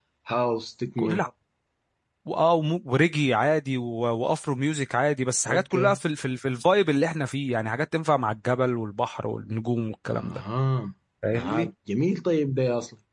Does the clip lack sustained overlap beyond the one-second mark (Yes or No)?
Yes